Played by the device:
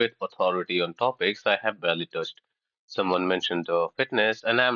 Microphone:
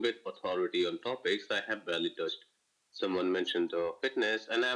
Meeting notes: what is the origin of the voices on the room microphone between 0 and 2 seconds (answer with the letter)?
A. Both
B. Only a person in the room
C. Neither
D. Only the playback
D